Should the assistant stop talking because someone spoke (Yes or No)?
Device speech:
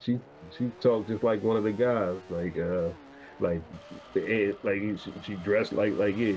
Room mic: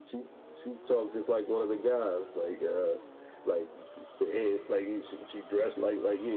No